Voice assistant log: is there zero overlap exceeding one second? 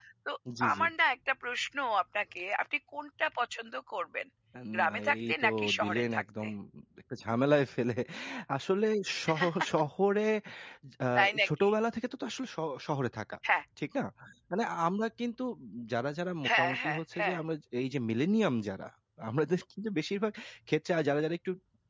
No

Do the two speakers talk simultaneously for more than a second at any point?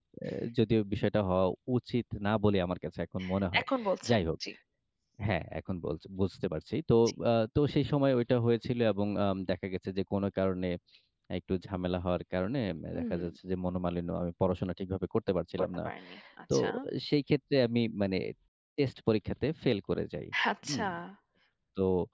No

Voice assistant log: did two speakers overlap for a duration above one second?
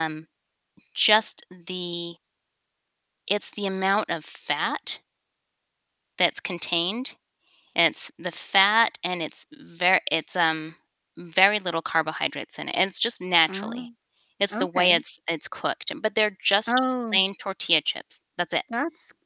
No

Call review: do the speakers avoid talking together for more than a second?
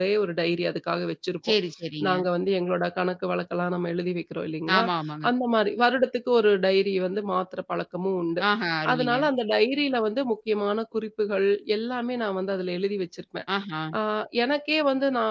Yes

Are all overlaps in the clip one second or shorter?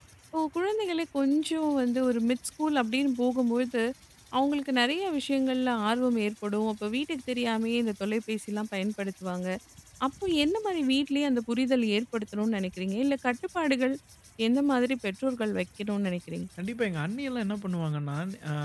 Yes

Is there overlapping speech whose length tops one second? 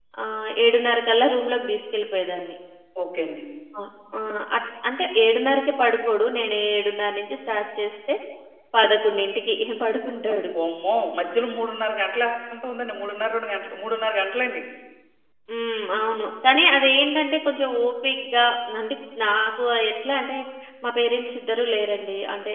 No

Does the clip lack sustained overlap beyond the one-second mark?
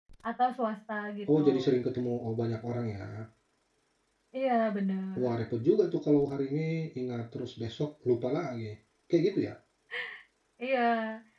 Yes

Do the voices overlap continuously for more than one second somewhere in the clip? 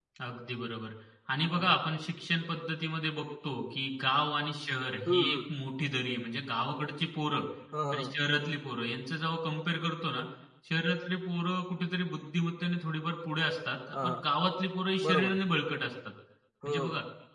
No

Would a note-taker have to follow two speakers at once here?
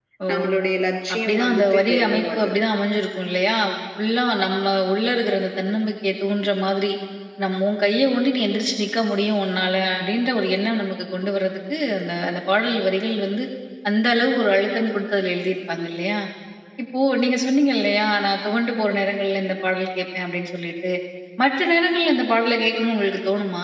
Yes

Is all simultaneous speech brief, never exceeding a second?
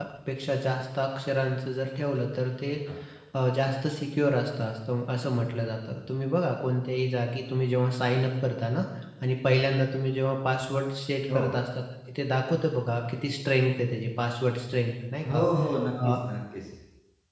Yes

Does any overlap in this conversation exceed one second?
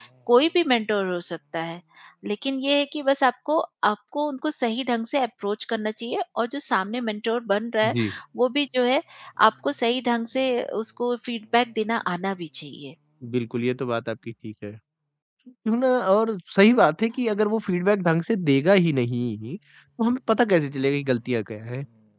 No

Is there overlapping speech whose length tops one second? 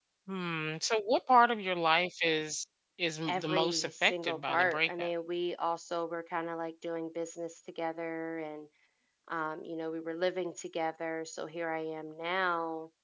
Yes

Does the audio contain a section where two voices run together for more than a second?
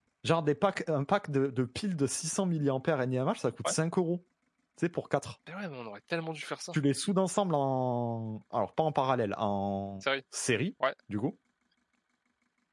No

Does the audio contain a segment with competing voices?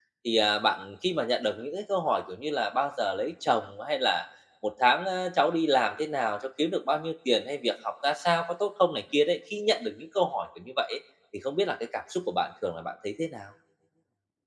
No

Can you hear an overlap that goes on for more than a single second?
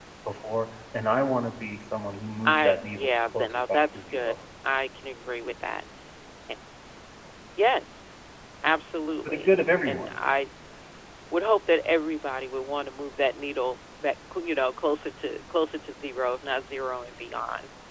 Yes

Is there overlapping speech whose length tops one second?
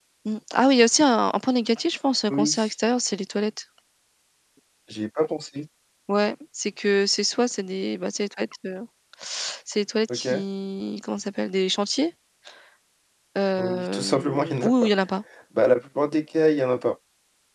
Yes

